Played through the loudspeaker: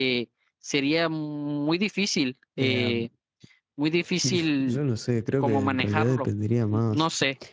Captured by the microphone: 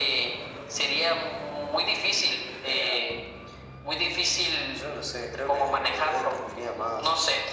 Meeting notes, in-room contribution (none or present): none